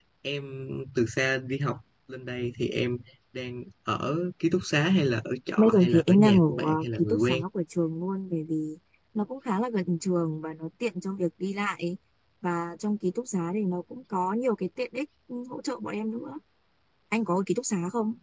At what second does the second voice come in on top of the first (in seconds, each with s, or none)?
5.6 s